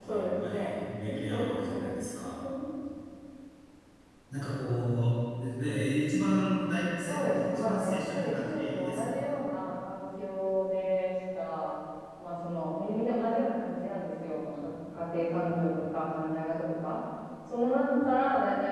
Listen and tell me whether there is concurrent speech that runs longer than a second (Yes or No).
Yes